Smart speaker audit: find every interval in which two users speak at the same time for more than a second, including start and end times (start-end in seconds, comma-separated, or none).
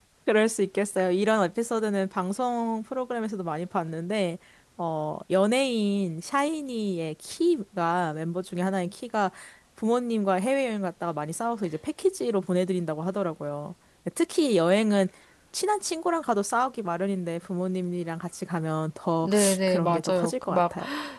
19.2-20.6